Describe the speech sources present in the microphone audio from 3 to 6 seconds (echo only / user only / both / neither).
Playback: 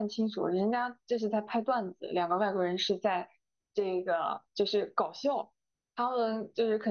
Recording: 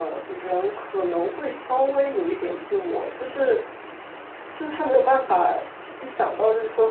user only